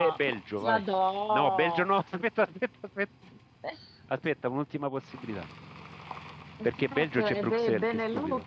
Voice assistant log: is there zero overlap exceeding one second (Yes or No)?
No